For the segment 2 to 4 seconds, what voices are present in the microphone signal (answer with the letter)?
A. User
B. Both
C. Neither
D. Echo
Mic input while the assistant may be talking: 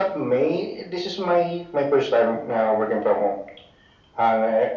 D